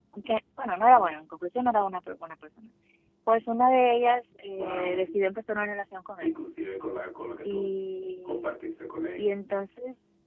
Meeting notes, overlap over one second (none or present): none